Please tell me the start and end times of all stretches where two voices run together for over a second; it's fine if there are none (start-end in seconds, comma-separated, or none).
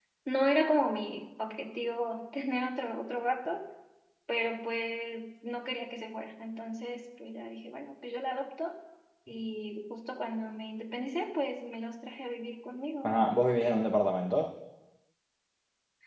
none